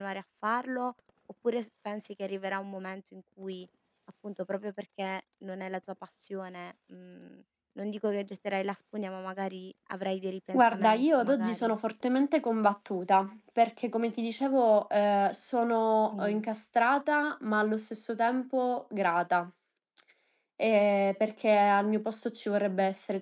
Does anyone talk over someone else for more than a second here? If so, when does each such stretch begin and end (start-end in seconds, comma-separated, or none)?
10.5-11.7